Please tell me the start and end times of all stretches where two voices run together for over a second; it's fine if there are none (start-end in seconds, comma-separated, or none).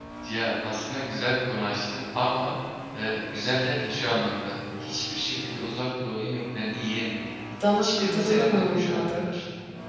7.7-9.3